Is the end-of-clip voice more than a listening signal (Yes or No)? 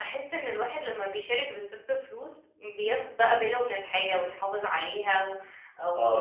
Yes